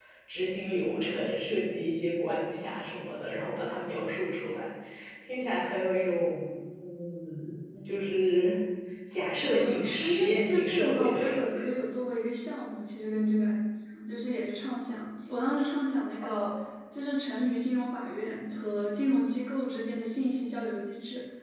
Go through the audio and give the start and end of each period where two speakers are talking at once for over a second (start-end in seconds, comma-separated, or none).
9.4-11.7